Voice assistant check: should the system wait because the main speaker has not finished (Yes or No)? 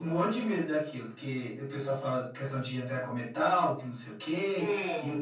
Yes